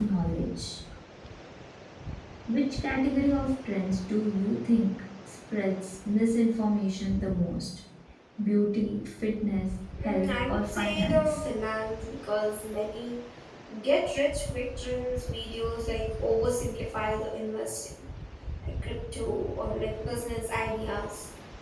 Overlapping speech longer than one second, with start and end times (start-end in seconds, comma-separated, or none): 10.0-11.4